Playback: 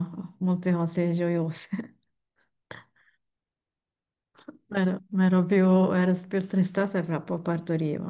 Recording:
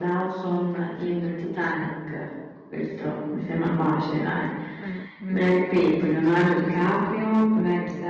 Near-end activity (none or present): present